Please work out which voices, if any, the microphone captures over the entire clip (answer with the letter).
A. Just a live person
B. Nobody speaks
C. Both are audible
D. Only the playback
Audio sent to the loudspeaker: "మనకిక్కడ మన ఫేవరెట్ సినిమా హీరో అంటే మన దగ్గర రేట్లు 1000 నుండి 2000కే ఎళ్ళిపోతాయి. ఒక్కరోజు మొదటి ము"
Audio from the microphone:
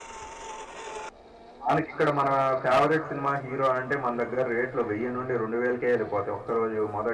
D